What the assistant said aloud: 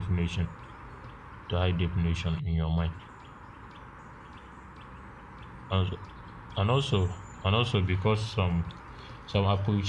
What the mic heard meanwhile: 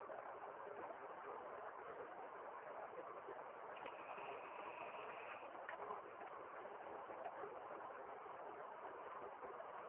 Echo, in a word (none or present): none